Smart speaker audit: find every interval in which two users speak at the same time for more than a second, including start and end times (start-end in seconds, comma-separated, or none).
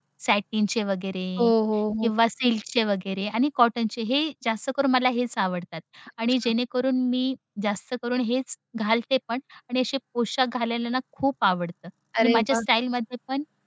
none